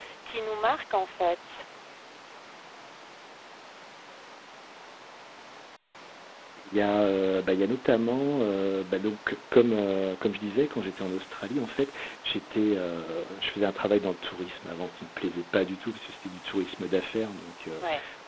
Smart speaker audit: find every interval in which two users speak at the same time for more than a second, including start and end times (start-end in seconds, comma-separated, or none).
none